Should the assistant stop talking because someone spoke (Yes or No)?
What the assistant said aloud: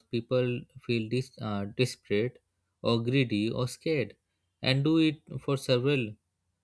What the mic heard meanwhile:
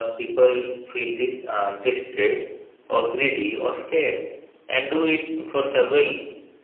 No